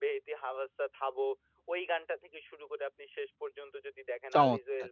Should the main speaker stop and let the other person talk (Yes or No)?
No